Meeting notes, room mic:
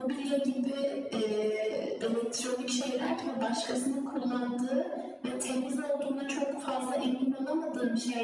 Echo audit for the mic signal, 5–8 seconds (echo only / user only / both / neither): echo only